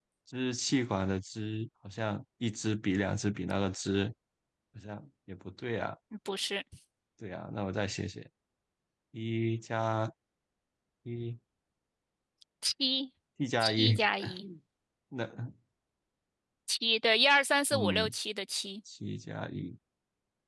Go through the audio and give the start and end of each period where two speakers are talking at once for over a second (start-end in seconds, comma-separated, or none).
none